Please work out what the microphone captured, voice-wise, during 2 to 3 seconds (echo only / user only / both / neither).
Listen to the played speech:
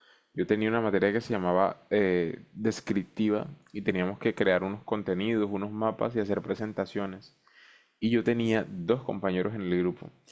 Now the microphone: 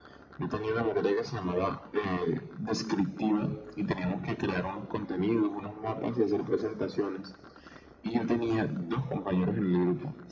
echo only